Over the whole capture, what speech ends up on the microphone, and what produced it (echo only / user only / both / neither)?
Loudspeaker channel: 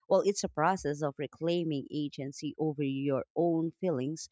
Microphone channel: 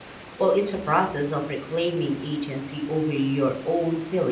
echo only